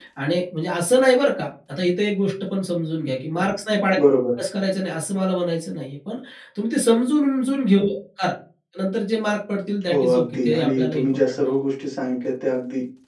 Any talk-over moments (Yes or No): Yes